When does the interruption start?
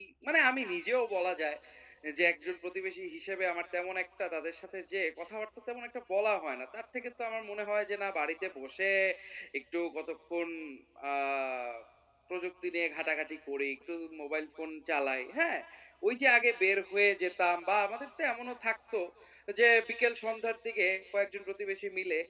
none

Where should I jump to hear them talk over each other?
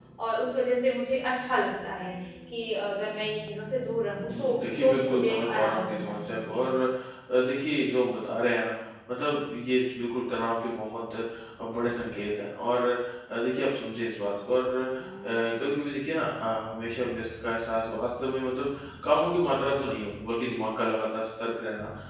4.3 s

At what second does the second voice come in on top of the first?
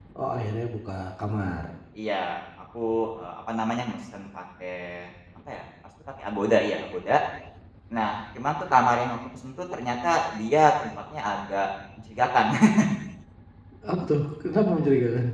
none

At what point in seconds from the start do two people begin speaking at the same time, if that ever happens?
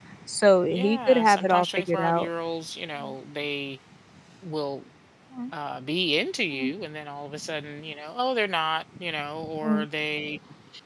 0.7 s

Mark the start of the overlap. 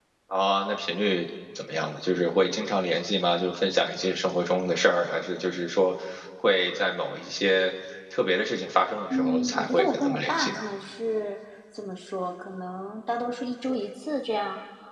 9.1 s

